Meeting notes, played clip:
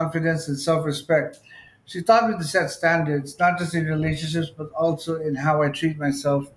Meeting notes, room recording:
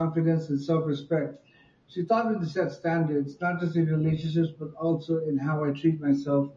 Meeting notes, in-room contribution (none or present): none